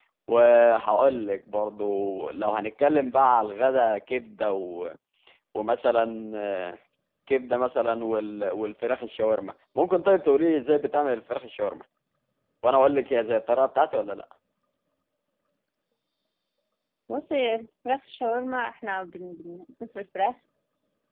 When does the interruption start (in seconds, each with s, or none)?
none